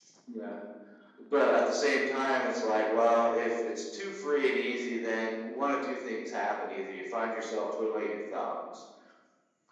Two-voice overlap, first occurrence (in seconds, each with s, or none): none